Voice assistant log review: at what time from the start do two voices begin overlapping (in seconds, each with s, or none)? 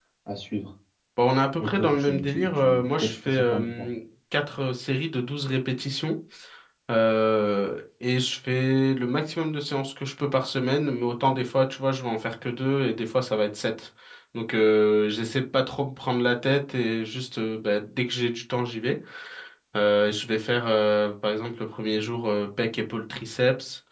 1.6 s